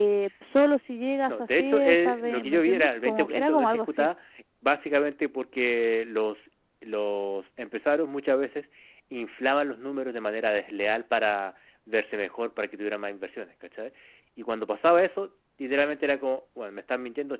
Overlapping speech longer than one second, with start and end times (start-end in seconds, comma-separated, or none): 1.3-4.1